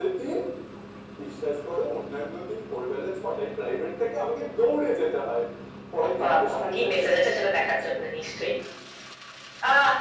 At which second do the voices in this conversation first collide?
6.2 s

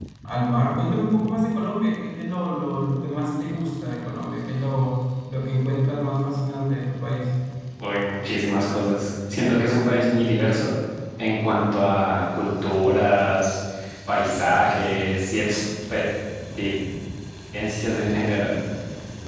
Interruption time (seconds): none

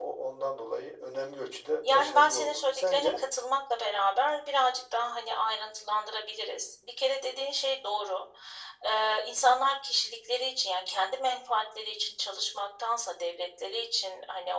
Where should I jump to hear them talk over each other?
1.8 s

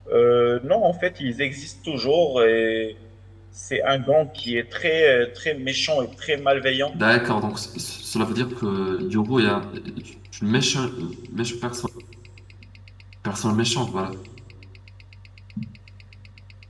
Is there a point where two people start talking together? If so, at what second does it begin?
none

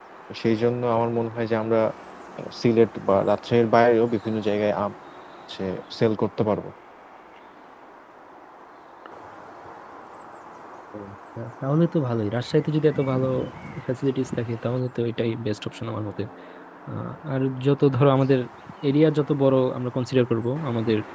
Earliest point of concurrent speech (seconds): none

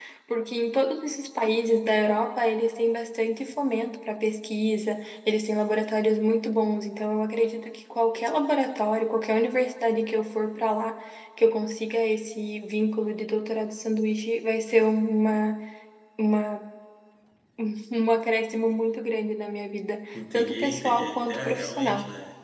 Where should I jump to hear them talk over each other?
20.1 s

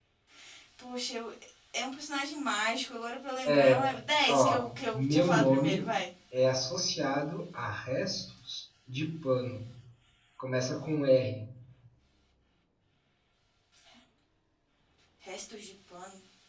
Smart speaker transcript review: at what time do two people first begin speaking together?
3.4 s

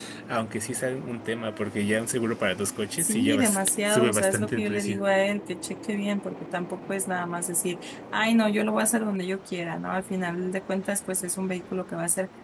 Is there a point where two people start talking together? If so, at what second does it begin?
3.0 s

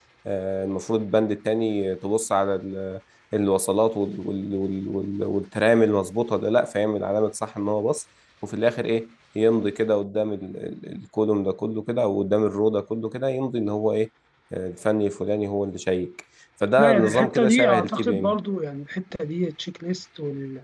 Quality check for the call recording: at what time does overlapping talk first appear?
16.8 s

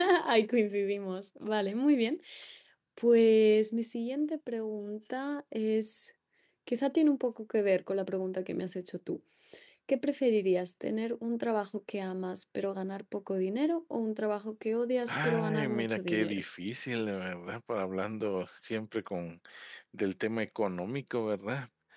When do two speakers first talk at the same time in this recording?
15.1 s

